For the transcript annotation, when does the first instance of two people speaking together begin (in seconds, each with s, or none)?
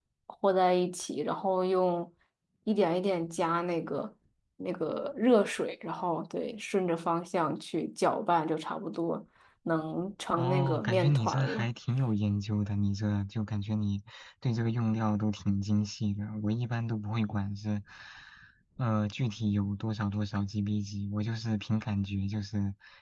10.4 s